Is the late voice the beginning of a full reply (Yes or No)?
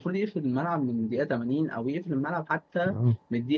No